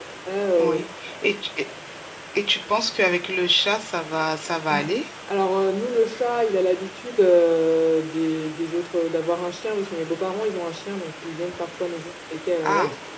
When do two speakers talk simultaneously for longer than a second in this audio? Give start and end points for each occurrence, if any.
none

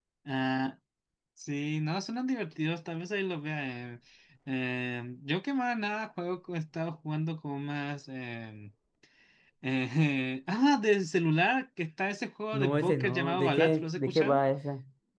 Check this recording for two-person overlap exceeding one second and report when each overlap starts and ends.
12.5-14.4

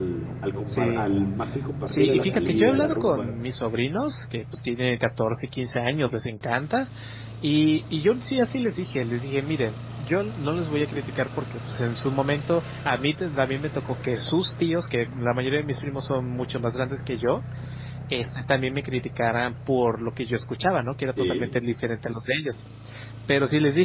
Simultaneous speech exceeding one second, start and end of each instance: 1.9-3.3

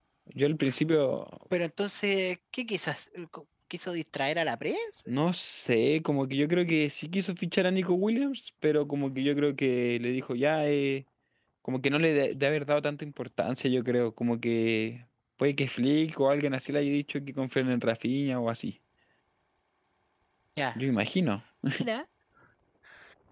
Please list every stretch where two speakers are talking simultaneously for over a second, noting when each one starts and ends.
none

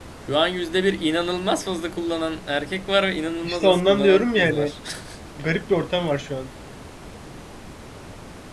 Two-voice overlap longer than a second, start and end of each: 3.4-4.7

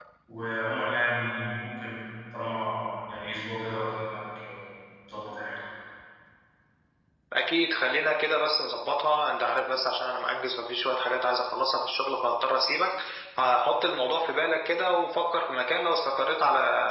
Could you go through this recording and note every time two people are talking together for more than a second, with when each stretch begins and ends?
none

